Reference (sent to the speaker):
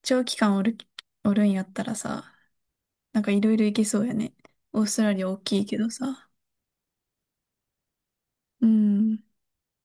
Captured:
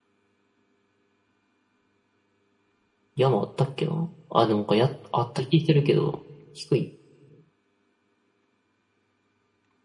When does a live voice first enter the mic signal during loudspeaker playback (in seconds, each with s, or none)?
3.1 s